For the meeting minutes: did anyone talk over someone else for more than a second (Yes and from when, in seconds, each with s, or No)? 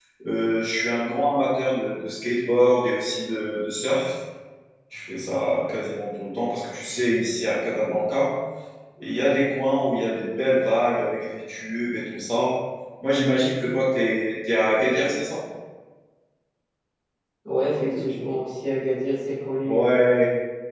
No